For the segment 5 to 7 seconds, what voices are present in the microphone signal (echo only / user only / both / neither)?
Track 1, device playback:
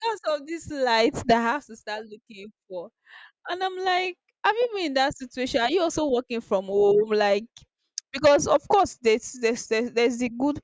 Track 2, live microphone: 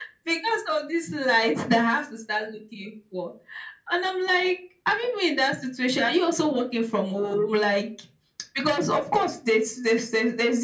echo only